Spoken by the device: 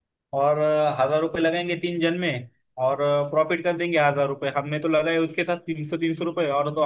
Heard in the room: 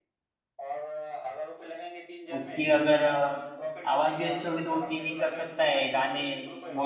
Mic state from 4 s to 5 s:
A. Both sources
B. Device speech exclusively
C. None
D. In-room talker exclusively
A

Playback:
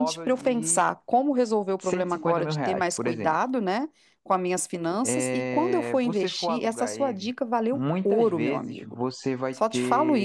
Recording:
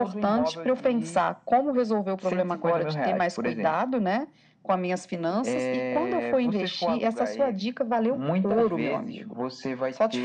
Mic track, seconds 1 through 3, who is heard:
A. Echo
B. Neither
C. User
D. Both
A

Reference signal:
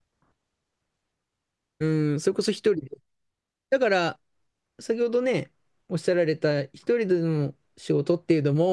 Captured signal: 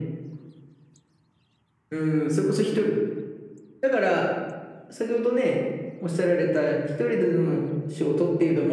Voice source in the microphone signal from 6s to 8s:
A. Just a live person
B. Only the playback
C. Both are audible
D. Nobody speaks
B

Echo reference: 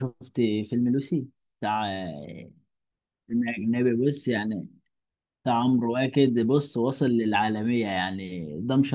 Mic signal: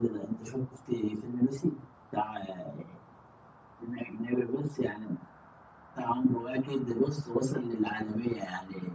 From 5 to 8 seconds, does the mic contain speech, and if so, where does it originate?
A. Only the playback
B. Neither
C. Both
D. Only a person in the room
A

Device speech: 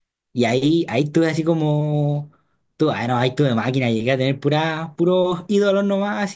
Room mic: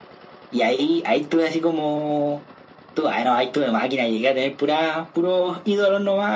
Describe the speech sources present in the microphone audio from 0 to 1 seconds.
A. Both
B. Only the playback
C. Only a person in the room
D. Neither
B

